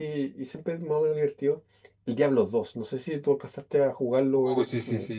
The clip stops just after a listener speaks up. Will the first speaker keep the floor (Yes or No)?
No